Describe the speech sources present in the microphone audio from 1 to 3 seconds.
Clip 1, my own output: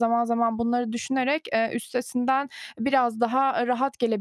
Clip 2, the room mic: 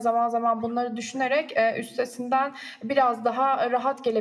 echo only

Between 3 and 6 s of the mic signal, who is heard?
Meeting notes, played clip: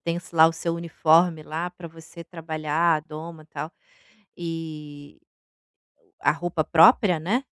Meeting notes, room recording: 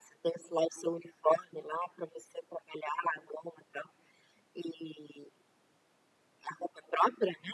echo only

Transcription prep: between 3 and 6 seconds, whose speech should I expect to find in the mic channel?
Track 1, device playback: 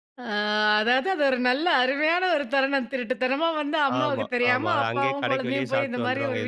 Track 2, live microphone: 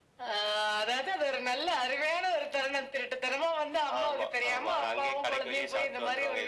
echo only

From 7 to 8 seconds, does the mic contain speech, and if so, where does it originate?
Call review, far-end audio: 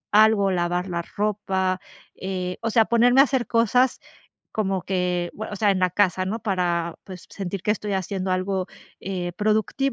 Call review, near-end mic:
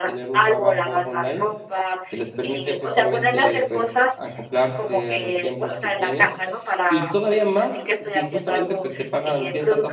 both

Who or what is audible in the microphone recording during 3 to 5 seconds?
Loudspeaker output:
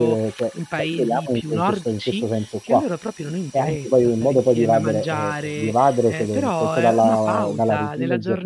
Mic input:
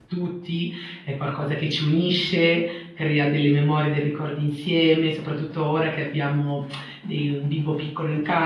user only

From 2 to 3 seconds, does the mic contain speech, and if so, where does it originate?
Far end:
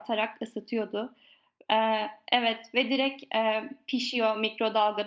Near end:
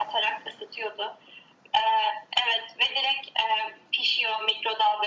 echo only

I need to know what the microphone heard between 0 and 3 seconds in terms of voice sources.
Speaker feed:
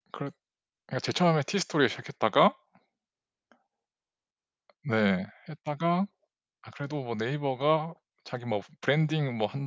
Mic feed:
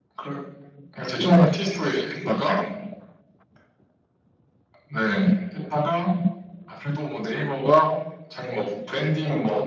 echo only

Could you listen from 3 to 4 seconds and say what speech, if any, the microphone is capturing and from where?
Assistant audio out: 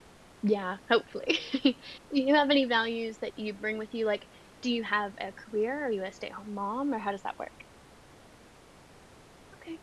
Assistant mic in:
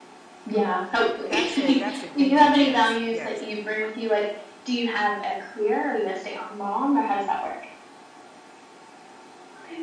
both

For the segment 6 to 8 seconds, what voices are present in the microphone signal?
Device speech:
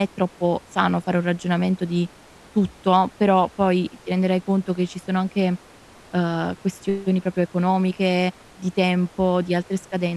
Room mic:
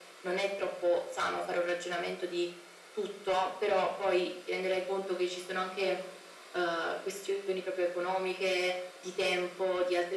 echo only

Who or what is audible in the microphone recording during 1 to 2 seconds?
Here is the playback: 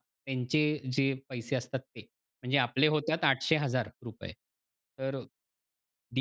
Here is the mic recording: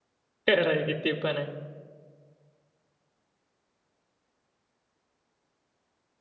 user only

